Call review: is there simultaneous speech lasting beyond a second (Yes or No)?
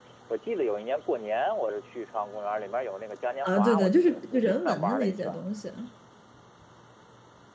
Yes